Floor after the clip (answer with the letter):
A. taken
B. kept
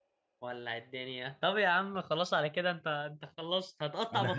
A